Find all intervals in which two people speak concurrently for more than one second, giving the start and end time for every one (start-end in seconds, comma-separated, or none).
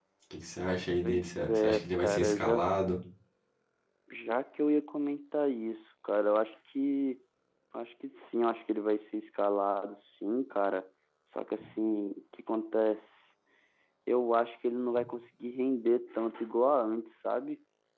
1.0-2.6